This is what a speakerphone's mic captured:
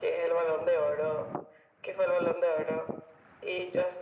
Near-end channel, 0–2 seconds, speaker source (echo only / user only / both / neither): echo only